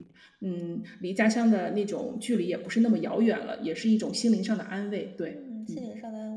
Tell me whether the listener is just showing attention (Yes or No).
No